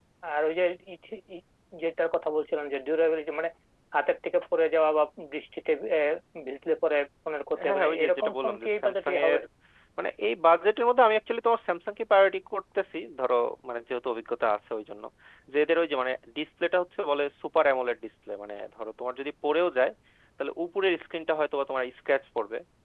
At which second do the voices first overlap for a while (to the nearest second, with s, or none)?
8 s